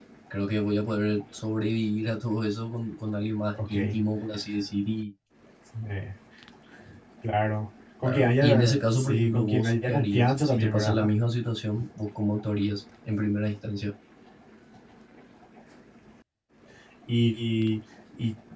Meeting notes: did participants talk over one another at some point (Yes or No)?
Yes